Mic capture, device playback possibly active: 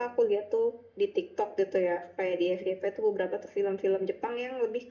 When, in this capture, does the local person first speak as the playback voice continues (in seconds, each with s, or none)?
none